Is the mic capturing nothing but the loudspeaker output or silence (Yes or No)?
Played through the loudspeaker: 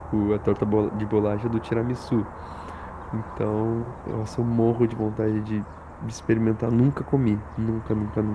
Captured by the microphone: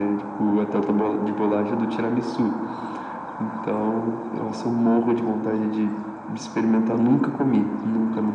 Yes